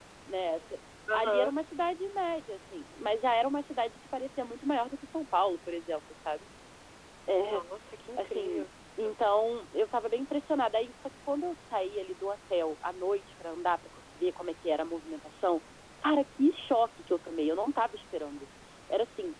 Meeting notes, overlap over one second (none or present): none